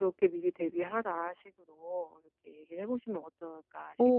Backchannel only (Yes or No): No